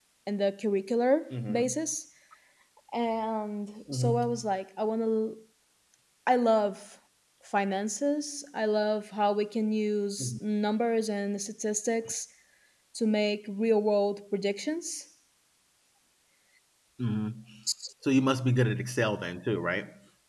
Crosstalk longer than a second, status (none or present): none